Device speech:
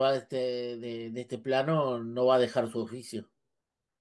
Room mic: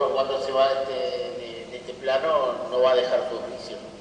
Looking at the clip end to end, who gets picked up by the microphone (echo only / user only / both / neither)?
echo only